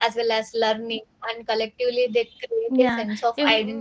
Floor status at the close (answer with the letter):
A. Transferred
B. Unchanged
A